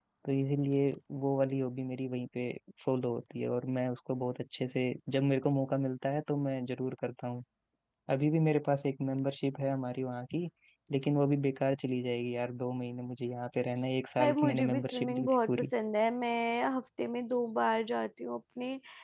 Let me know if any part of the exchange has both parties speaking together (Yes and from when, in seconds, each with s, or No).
Yes, from 14.2 s